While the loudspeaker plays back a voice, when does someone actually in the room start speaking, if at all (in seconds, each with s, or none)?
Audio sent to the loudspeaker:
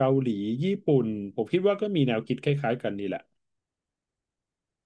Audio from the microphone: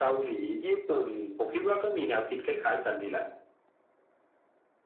none